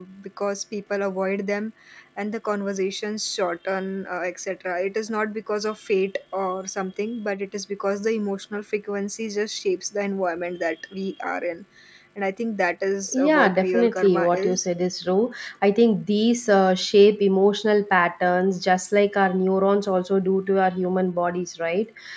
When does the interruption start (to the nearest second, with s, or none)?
13 s